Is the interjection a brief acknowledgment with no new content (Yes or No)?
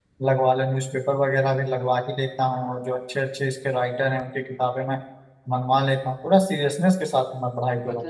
No